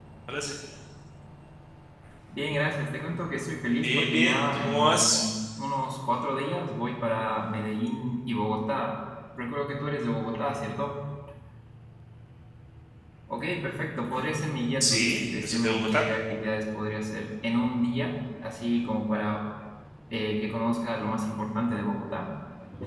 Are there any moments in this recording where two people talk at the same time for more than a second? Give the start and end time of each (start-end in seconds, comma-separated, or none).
3.8-5.2, 14.8-16.1